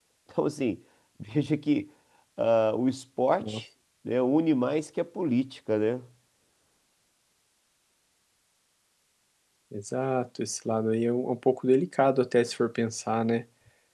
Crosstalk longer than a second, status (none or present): none